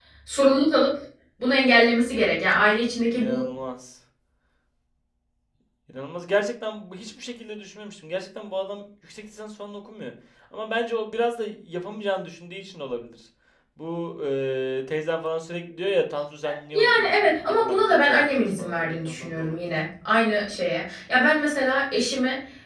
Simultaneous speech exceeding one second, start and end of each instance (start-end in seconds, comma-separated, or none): 16.8-19.7